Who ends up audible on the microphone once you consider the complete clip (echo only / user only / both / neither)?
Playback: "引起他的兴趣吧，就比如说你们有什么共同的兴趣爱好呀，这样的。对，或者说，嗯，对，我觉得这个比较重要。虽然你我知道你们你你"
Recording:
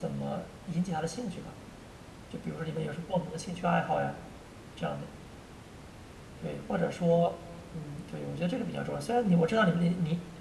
echo only